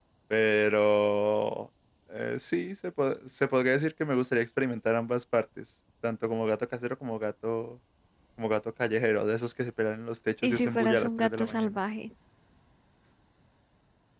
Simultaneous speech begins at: 10 s

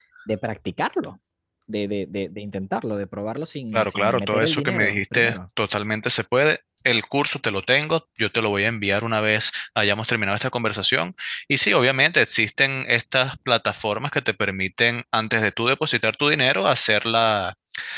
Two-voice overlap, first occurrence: 4 s

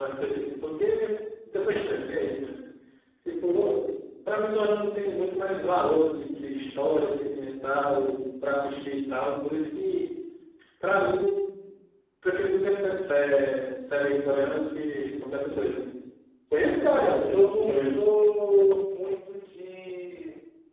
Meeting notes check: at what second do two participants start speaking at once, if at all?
17 s

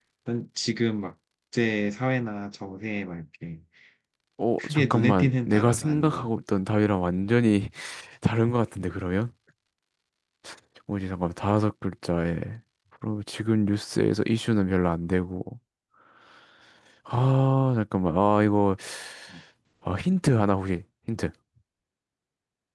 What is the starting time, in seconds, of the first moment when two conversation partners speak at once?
5 s

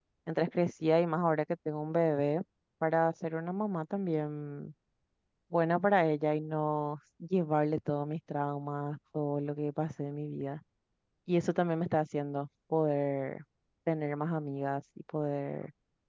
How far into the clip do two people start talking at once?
none

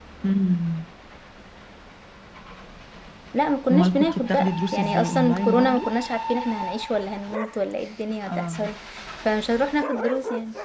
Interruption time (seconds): 4 s

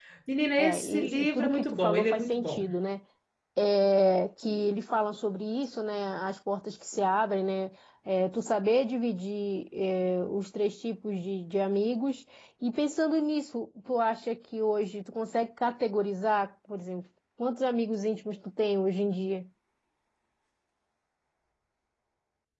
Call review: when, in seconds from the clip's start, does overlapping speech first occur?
1 s

